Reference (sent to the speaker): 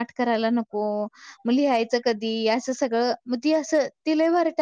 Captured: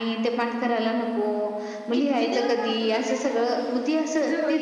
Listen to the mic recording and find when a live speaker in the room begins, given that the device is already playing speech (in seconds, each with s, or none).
1.9 s